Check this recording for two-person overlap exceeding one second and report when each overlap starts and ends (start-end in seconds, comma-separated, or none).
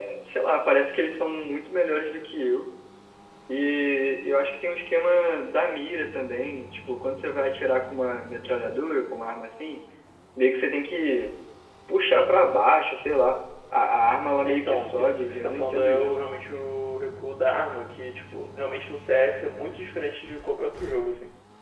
14.4-16.2